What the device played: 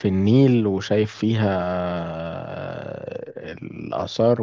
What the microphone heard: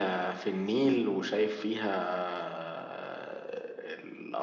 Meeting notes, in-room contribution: none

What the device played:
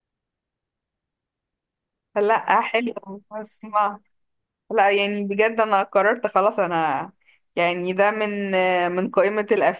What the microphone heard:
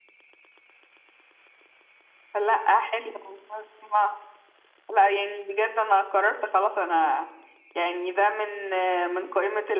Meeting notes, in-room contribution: none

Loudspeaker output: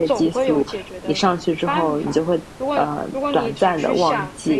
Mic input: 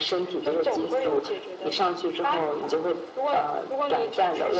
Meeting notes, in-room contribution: none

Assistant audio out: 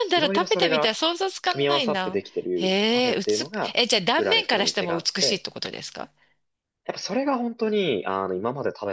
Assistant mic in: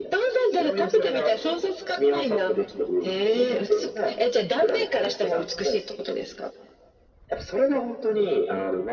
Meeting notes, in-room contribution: none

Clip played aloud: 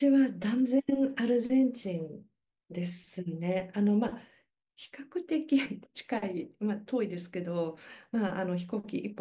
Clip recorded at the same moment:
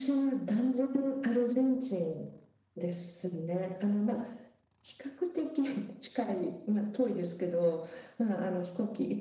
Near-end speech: none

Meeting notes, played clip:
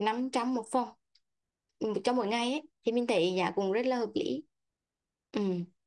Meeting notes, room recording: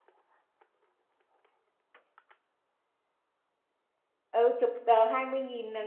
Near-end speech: present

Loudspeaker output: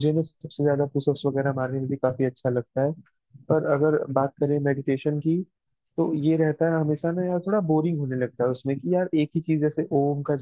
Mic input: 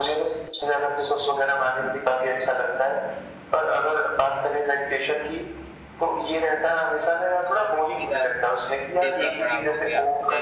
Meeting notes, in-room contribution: present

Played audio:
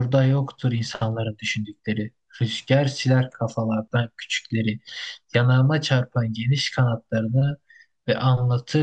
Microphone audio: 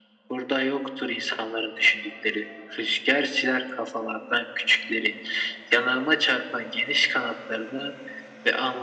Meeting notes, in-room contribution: none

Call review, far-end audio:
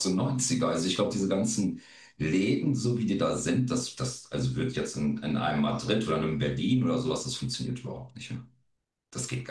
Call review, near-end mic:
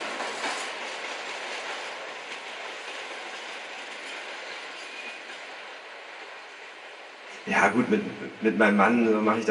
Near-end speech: present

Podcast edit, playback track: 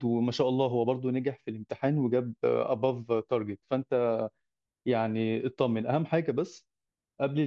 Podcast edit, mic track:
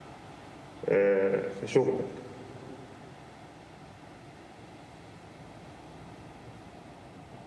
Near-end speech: present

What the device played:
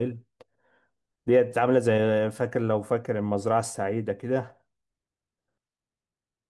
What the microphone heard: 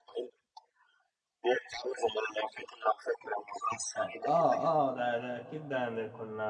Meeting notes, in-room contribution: present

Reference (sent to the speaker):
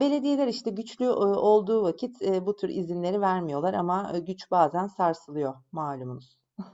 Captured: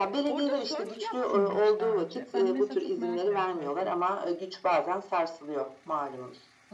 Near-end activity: present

